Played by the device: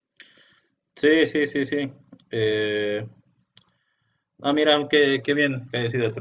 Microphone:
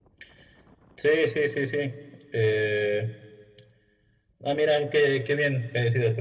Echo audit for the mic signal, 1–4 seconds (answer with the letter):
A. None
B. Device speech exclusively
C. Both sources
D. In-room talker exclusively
B